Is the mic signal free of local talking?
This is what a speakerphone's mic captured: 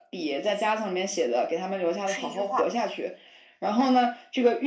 No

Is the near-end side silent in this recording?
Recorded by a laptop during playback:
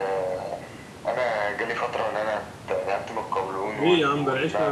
No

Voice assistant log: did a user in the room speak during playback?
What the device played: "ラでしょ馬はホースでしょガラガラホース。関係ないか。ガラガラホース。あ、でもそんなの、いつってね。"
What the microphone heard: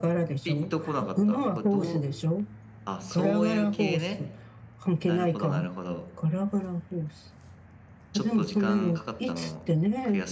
Yes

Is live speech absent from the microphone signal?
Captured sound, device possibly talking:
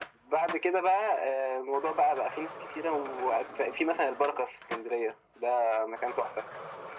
Yes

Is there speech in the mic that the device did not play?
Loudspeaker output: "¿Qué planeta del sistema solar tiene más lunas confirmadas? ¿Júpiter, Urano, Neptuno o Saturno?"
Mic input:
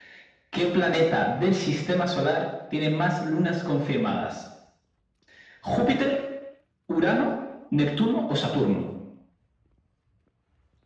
No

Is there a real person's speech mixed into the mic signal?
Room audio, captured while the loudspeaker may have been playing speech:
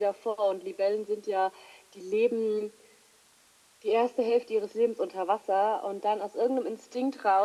No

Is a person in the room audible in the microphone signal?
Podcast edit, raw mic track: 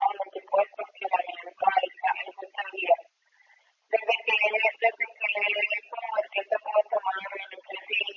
No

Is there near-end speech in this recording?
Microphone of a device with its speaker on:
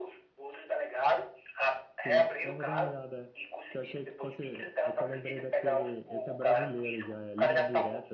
Yes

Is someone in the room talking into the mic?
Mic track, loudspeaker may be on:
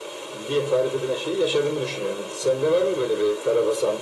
No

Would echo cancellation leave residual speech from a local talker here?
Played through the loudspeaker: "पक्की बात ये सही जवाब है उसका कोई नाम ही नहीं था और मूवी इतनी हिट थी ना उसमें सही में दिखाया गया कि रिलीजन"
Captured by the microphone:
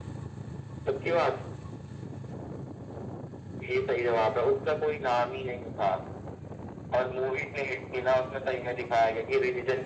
No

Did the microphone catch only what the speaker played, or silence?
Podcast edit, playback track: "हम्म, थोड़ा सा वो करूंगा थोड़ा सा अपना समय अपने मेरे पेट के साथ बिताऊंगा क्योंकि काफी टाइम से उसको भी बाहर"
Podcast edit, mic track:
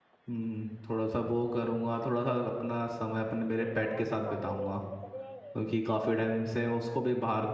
No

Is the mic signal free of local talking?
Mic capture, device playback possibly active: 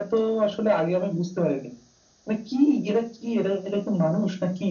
Yes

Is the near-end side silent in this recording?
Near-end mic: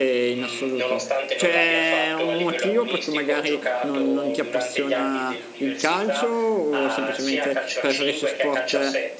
No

